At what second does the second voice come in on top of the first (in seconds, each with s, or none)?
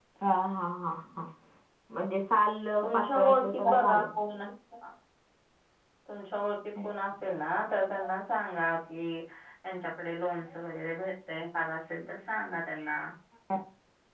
2.8 s